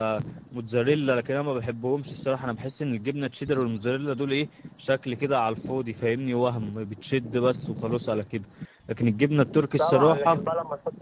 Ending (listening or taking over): taking over